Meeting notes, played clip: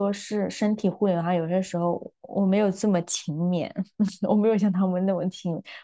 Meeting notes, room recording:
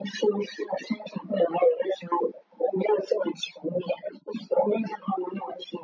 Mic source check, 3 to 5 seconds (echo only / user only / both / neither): echo only